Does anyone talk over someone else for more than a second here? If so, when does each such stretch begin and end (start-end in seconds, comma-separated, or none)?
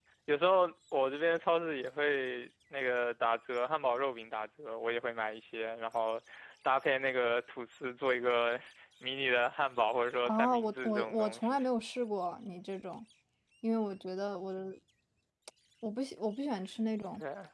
10.2-11.6